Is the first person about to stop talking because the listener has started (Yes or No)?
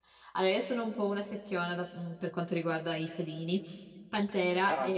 No